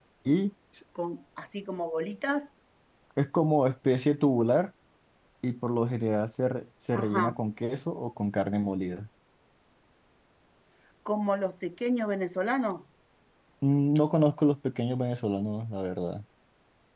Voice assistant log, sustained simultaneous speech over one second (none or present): none